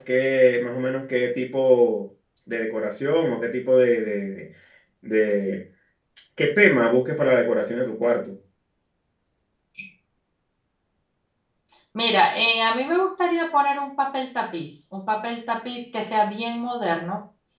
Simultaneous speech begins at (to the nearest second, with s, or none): none